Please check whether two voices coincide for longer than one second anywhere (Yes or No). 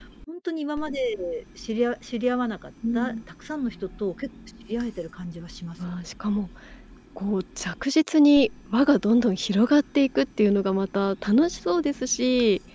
No